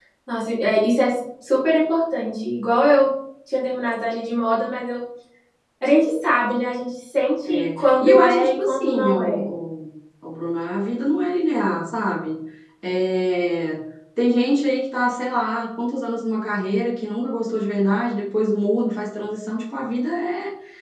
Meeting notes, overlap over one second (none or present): present